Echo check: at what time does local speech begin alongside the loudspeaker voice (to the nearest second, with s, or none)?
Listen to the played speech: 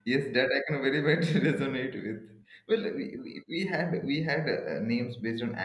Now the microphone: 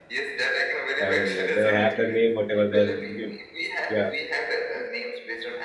1 s